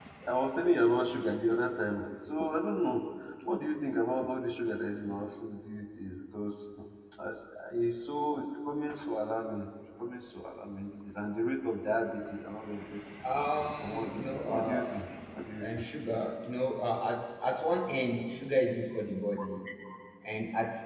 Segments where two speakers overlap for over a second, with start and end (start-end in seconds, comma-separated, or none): 13.8-15.0